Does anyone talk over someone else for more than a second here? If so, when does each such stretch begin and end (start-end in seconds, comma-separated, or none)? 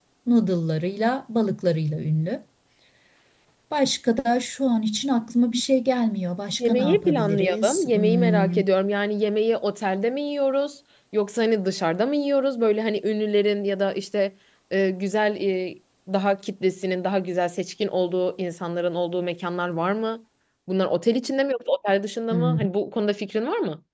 6.6-8.6